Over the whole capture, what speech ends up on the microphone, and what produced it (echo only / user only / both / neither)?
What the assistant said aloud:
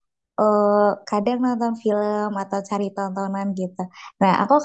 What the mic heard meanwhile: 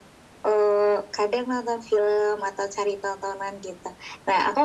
echo only